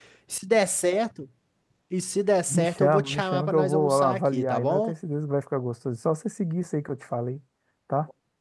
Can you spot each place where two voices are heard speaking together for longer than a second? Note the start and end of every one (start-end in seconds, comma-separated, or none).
2.5-4.9